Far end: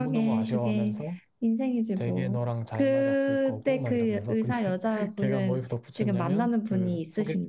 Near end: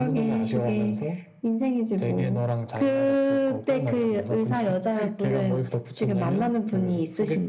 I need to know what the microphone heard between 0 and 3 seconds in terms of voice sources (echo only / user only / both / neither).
echo only